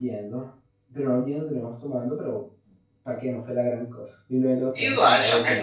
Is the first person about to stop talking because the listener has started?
Yes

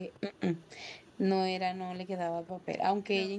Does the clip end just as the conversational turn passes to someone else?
No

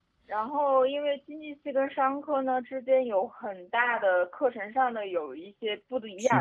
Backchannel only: Yes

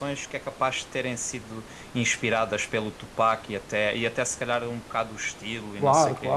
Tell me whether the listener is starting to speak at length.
Yes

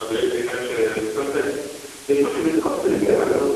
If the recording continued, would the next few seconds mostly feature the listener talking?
No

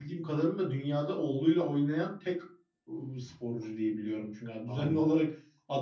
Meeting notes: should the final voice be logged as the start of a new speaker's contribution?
No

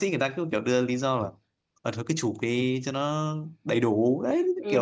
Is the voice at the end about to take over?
Yes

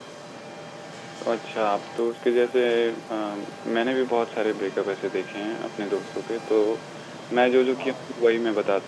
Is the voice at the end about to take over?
No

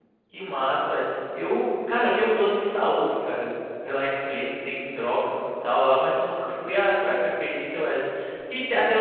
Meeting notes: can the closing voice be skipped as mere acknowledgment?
Yes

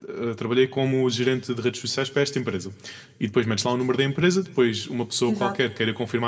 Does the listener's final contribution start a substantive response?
No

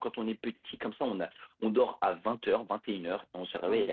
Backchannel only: Yes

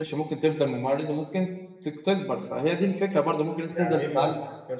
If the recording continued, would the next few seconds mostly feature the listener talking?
Yes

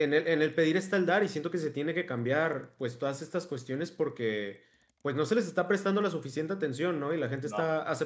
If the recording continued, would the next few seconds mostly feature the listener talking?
No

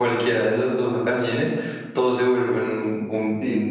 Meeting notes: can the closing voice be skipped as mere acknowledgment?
No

